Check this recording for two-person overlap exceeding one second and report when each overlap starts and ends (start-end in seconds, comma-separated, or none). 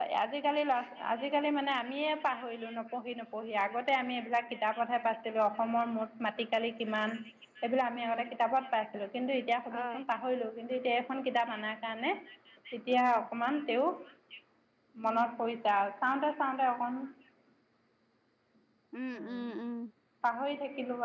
none